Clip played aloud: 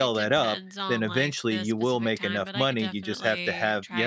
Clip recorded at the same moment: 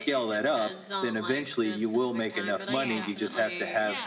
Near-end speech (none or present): present